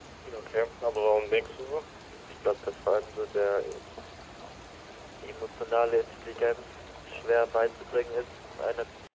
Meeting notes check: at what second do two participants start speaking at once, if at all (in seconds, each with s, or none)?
none